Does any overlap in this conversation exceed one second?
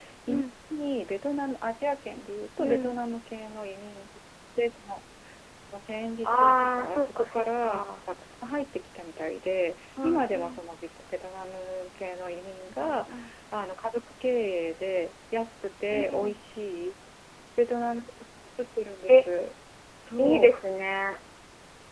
Yes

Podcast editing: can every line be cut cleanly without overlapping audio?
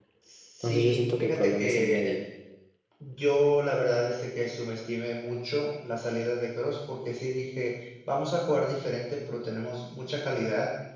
No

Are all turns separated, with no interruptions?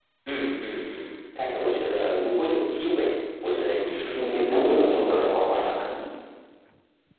No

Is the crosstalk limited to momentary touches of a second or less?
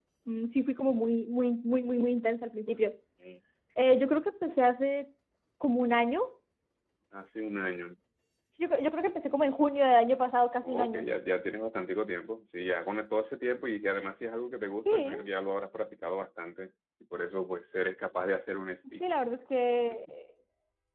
Yes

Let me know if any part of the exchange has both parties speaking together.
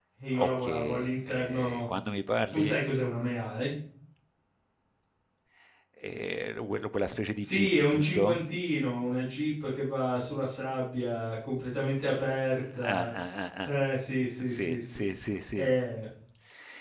Yes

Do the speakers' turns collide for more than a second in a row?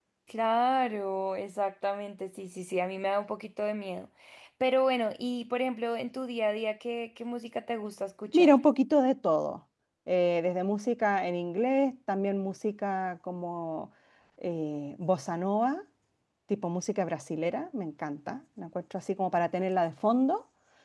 No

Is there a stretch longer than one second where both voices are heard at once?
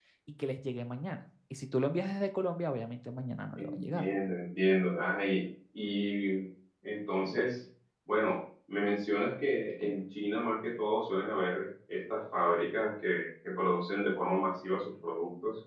No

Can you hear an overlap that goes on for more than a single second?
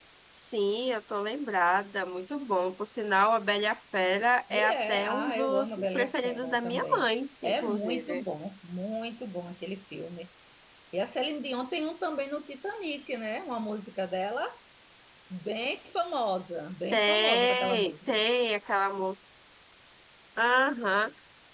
Yes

